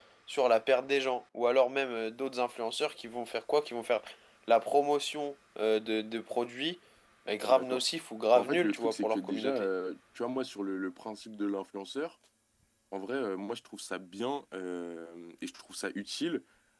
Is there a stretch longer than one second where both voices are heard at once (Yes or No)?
Yes